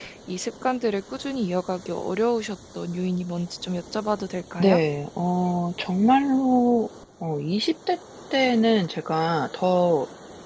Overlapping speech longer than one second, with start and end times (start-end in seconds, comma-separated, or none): none